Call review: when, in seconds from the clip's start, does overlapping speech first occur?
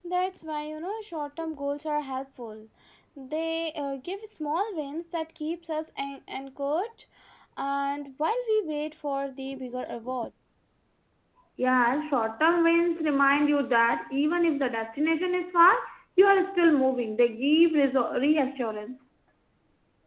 none

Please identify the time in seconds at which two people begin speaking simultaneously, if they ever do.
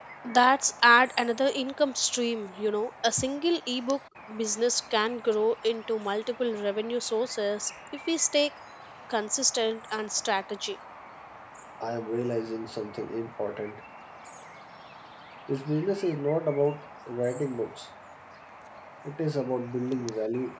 none

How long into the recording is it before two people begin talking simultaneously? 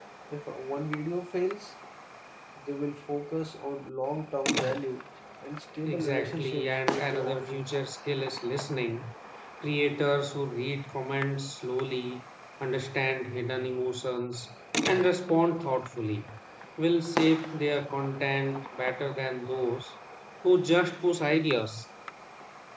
6 s

